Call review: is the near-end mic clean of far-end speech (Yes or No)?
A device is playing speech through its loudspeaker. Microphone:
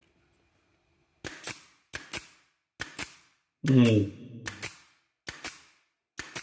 Yes